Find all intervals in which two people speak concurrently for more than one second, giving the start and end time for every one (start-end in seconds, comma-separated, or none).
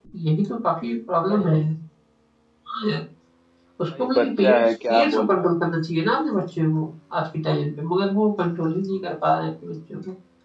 4.0-5.5